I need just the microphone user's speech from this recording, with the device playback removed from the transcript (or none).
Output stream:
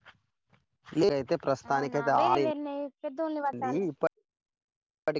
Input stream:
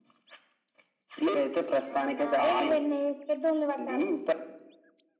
none